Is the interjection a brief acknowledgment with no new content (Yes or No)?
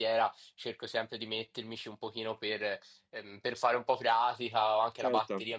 Yes